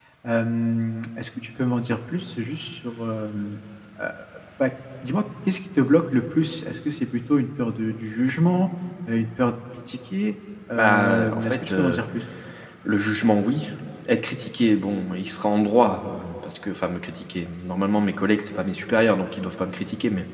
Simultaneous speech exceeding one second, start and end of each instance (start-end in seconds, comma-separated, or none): 10.8-12.0